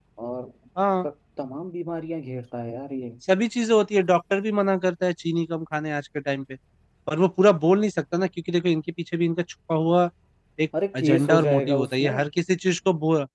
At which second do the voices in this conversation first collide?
11 s

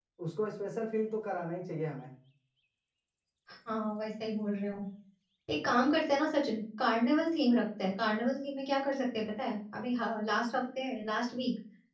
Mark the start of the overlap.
none

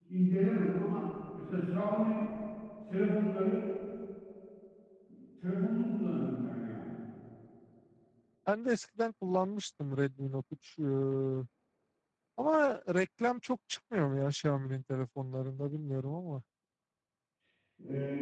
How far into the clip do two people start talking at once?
none

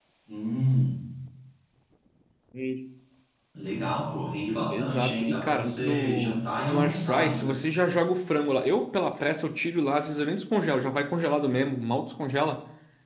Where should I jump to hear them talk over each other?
5 s

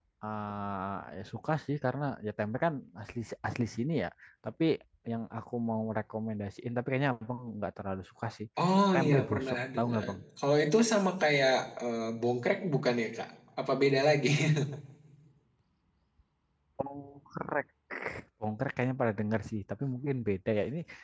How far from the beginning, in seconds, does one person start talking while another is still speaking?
9 s

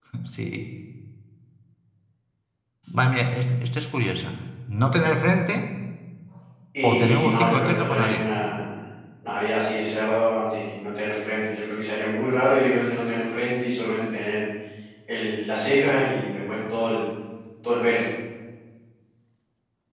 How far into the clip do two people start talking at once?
7 s

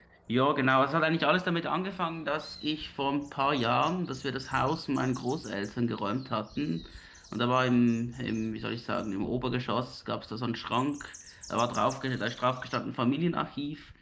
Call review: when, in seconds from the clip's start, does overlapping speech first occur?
none

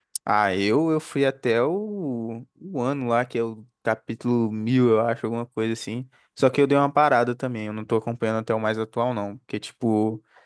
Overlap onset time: none

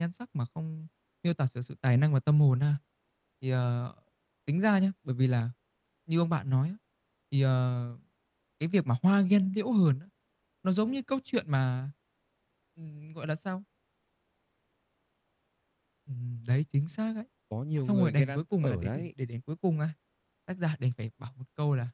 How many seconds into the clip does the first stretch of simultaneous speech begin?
18 s

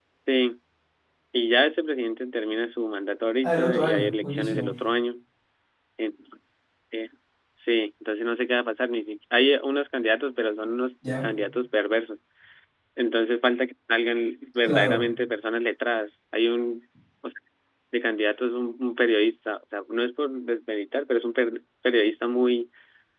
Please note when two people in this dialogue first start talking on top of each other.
3 s

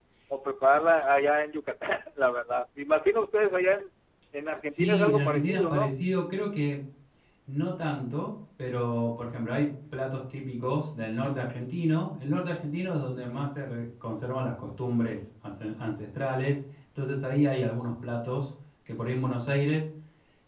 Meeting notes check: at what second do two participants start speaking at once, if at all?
5 s

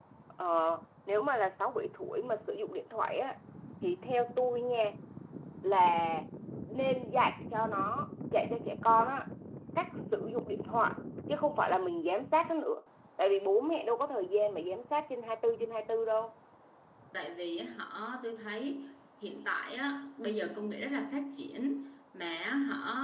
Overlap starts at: none

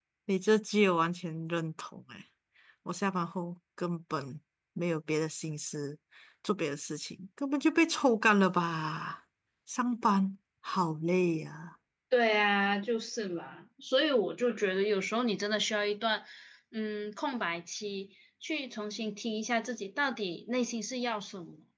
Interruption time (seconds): none

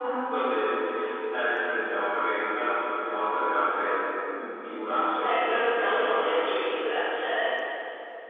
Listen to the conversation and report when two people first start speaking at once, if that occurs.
5 s

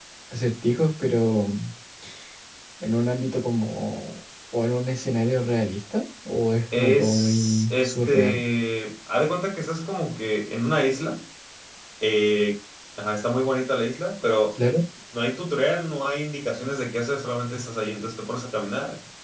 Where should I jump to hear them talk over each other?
7 s

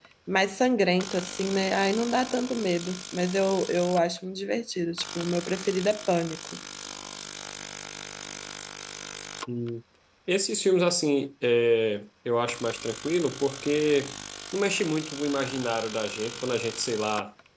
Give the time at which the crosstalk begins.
none

